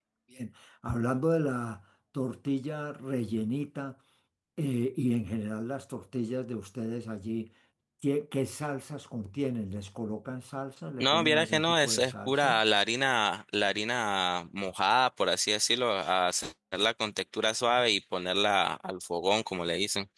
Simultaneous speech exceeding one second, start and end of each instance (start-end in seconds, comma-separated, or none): 11.0-12.6